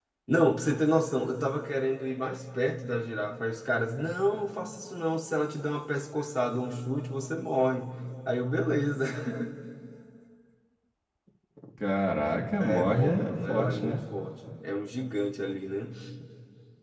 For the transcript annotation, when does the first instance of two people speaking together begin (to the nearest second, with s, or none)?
13 s